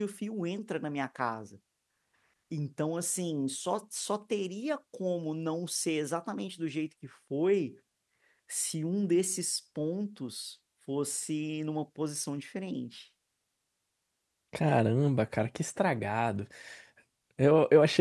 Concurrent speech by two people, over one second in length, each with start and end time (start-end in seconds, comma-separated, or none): none